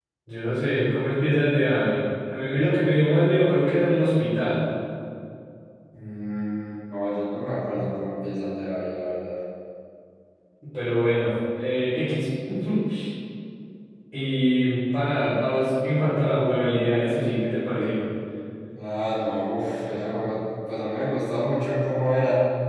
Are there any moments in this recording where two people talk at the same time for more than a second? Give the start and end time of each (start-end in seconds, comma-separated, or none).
none